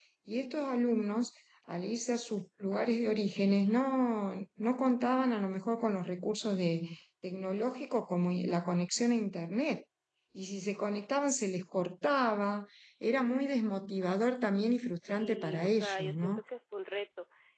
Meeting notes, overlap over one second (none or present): present